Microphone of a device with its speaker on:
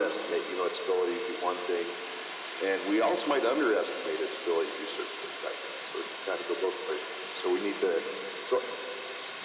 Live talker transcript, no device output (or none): none